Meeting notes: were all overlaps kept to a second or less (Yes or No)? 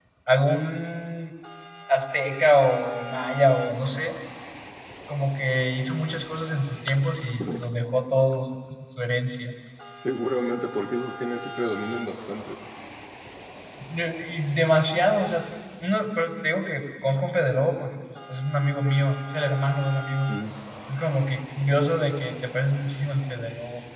Yes